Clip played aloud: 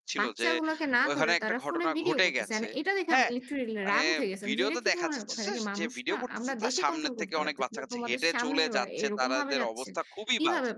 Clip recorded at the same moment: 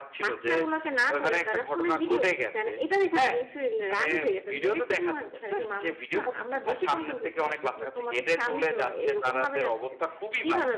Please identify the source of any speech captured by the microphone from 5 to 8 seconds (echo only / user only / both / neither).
echo only